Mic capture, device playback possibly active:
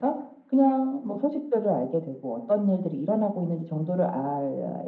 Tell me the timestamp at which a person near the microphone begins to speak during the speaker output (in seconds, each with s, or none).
none